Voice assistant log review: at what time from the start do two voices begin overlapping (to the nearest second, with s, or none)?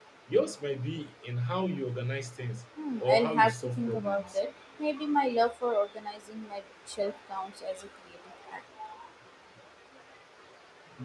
3 s